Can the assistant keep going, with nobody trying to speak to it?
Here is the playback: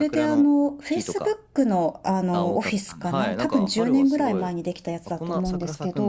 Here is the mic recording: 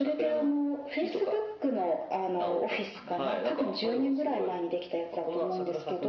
Yes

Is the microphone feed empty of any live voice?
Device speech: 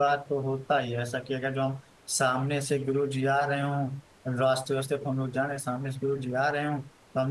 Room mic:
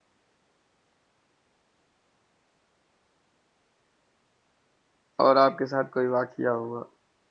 No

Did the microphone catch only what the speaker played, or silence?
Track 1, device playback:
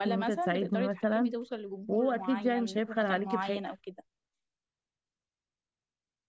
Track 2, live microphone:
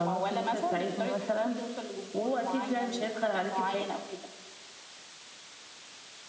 Yes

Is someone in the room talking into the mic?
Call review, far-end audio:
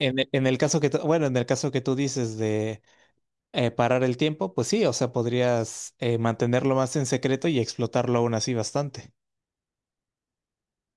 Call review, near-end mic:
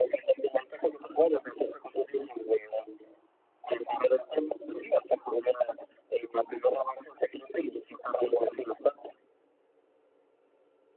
No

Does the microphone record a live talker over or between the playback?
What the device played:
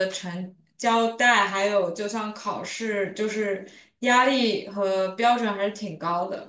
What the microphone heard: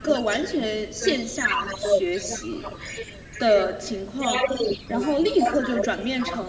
Yes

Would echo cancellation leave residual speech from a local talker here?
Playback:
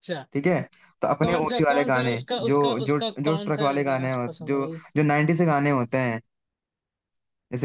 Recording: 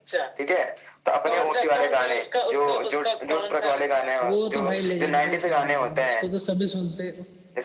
Yes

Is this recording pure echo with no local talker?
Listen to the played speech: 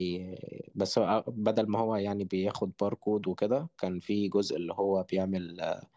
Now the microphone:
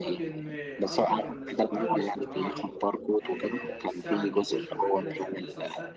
No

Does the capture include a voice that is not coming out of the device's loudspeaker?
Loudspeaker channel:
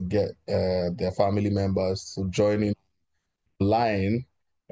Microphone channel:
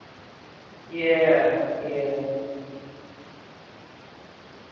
Yes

